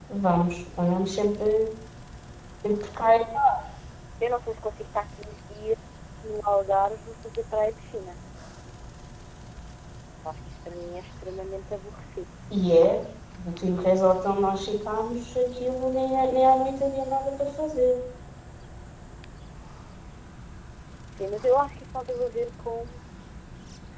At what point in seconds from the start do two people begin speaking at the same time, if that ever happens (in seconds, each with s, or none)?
none